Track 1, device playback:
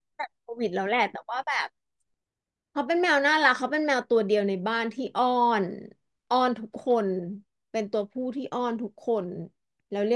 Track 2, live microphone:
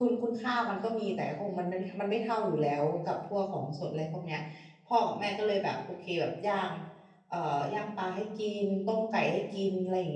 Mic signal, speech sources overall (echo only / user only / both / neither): user only